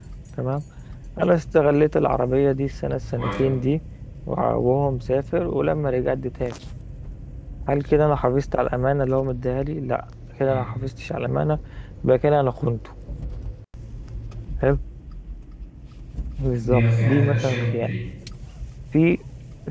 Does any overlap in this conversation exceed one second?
Yes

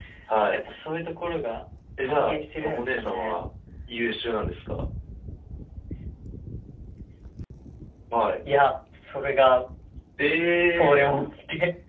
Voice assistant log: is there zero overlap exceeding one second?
No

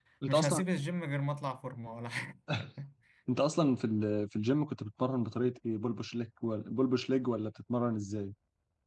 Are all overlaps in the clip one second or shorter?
Yes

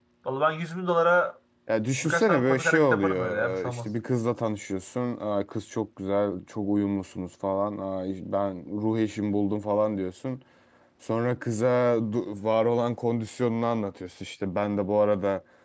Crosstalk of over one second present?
Yes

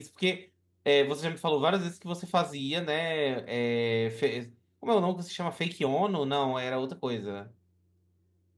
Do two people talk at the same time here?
No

